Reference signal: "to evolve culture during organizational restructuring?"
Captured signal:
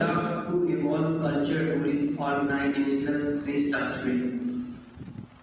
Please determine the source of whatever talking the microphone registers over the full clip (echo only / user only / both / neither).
echo only